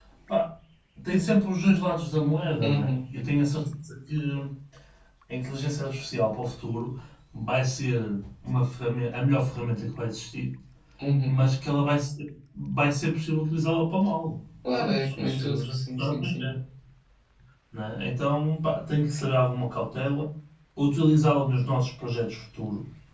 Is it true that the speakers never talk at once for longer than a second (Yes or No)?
No